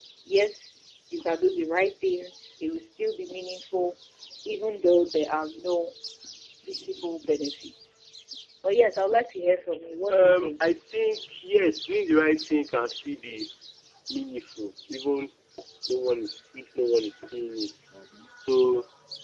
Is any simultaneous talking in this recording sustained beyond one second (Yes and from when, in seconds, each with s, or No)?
No